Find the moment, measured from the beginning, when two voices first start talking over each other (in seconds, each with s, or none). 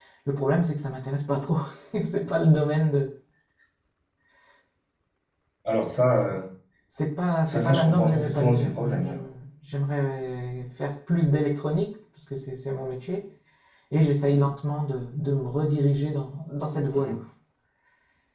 7.5 s